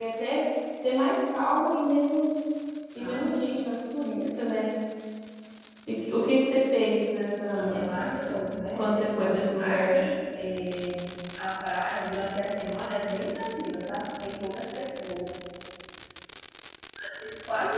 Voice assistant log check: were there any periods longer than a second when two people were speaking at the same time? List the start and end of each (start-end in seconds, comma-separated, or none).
8.8-10.0